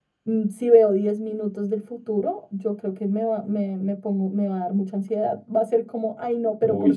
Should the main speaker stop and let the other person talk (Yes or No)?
No